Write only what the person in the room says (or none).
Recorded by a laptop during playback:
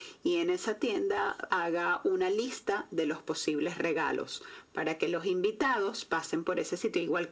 none